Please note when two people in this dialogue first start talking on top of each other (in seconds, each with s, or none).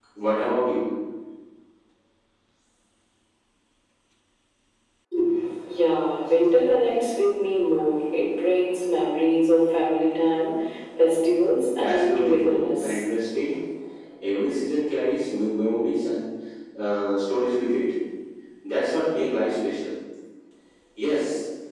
11.8 s